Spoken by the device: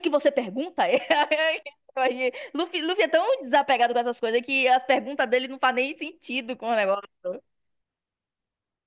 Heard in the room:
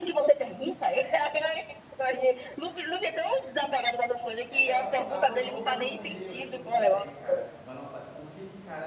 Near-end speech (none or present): present